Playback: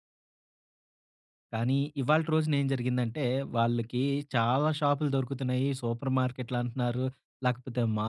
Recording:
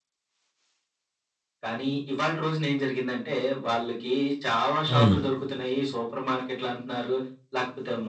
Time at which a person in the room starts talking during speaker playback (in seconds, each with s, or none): 4.9 s